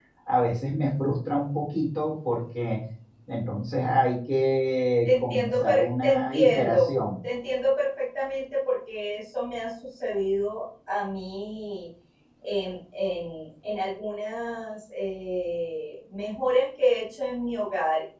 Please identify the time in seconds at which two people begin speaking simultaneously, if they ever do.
5.0 s

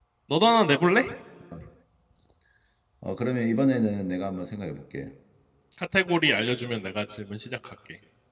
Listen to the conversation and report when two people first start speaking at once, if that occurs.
none

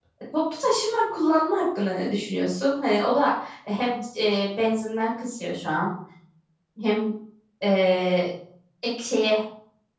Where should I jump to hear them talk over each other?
none

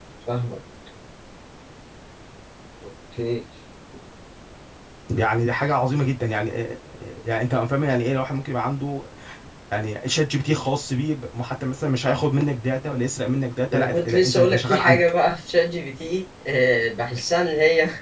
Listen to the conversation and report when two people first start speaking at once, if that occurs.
13.7 s

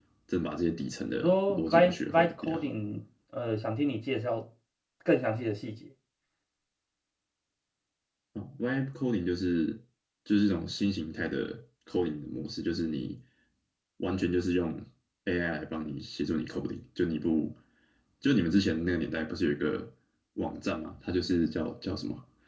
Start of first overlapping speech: 1.2 s

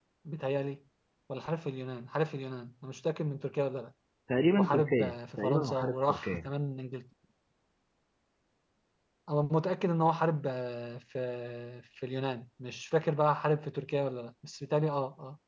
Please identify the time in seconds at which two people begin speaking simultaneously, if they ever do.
4.6 s

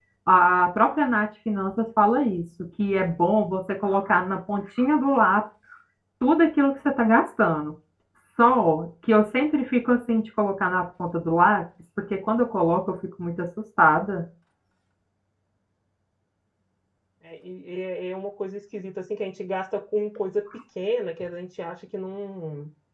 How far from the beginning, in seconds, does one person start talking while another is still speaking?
none

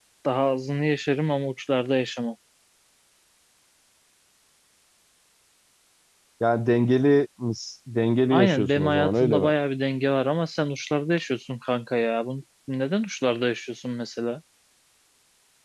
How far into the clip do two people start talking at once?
8.3 s

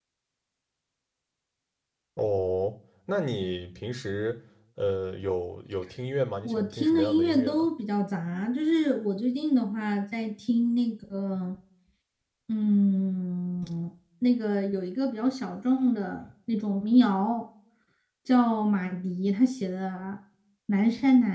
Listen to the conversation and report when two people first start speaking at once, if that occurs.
6.4 s

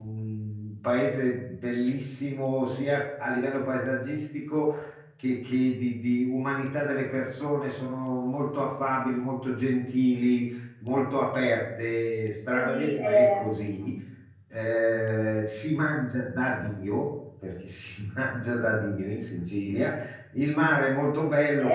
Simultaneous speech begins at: 12.5 s

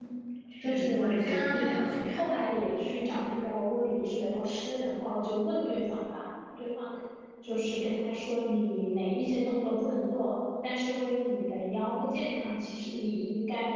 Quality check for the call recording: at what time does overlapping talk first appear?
0.6 s

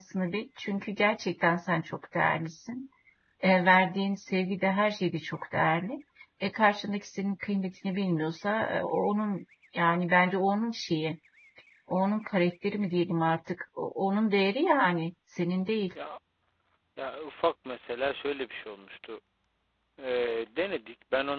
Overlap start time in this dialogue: none

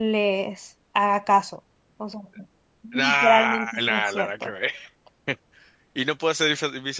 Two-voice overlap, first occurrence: 2.9 s

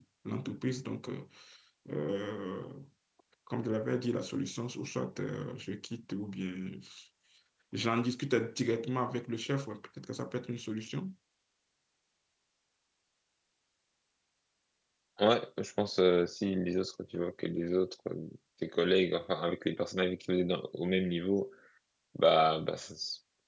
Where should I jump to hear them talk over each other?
none

